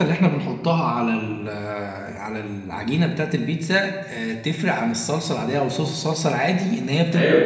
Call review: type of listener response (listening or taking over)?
taking over